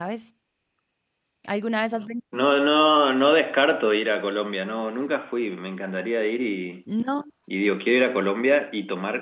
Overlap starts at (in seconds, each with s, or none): none